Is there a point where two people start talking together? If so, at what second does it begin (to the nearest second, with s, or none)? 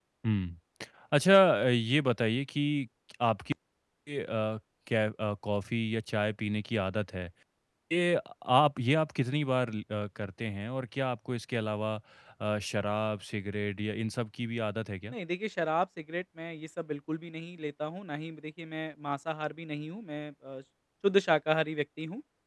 none